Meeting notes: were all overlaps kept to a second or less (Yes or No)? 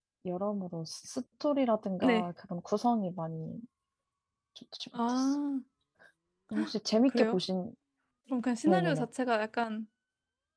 Yes